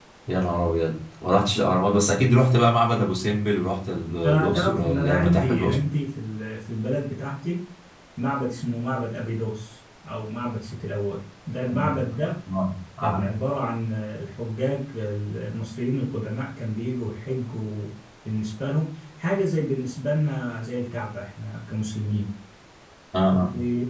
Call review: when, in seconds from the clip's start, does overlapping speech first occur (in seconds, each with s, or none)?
4.2 s